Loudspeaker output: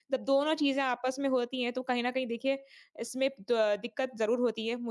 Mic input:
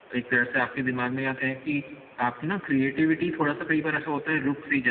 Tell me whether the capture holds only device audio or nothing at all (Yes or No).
No